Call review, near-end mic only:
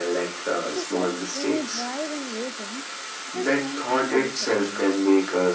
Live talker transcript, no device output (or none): He said, When you drive and you think, just one time I will check my phone.